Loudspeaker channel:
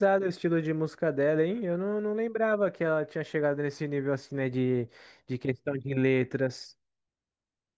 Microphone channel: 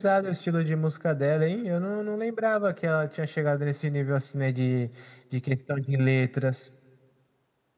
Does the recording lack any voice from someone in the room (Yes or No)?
Yes